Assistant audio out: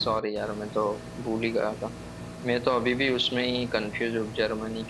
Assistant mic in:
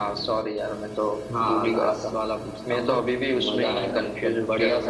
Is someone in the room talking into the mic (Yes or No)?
Yes